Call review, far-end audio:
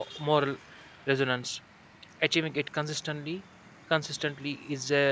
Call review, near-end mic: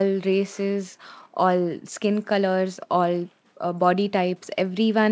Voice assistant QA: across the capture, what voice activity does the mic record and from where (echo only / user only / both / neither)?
user only